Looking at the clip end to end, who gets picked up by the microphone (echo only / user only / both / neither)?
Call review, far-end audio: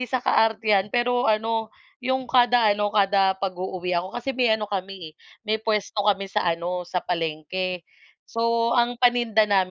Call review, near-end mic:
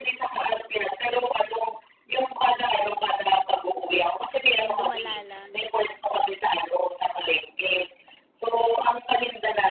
both